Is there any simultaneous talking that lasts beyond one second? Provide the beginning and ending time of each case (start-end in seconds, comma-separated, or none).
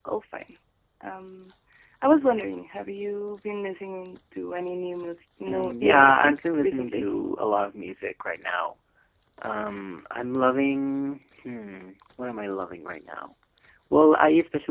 5.5-7.0